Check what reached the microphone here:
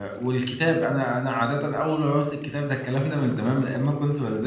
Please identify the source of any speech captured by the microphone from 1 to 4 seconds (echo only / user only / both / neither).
user only